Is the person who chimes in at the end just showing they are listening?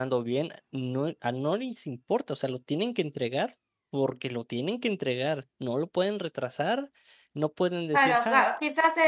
No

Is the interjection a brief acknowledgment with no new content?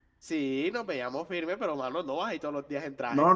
No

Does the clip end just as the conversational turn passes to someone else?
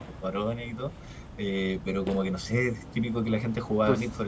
No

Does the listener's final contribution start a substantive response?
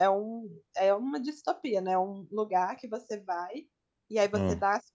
No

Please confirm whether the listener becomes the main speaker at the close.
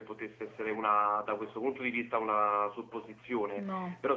No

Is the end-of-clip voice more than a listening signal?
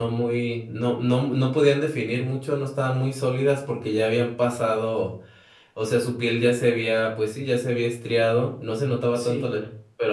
No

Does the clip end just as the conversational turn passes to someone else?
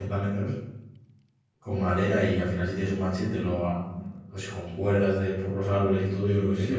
Yes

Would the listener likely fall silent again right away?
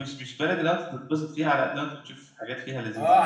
No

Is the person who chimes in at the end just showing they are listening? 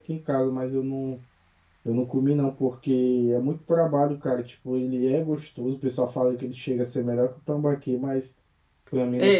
No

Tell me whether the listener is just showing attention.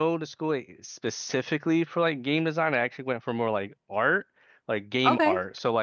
Yes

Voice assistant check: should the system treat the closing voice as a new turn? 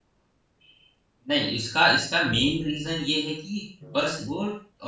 No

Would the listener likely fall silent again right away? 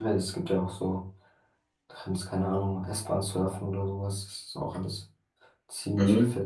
No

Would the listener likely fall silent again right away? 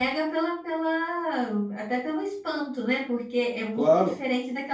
Yes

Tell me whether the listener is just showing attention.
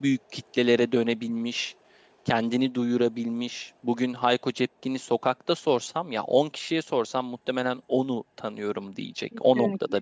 No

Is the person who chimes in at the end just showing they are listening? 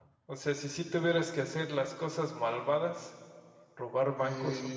No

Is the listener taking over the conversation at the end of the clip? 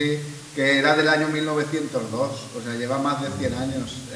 No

